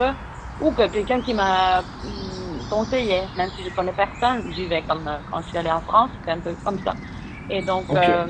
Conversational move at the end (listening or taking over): listening